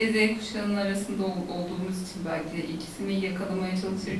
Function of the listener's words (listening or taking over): listening